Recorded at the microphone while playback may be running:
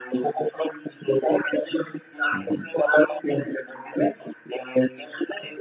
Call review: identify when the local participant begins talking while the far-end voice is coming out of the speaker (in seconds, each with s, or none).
2.3 s